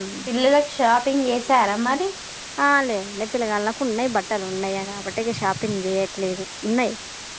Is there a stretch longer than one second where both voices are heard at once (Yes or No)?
No